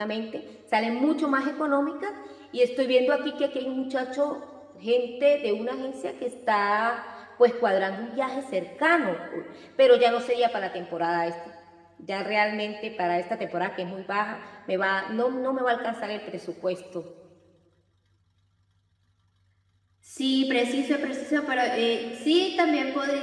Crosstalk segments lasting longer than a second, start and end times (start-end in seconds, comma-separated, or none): none